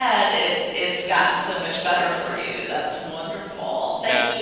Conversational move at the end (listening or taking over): listening